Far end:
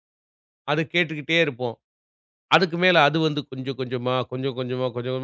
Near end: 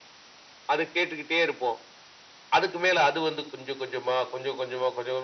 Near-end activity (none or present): none